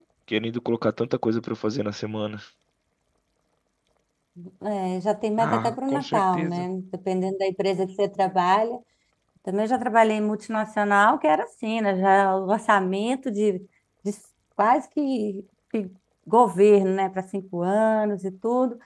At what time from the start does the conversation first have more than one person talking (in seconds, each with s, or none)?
5.4 s